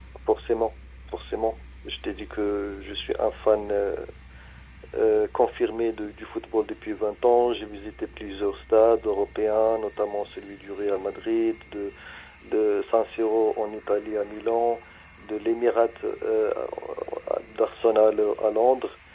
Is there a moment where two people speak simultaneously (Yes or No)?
No